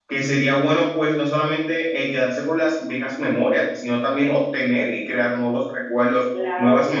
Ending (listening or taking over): listening